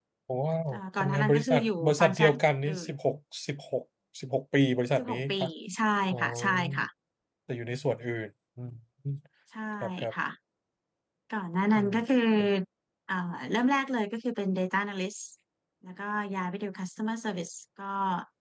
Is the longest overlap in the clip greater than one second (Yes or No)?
Yes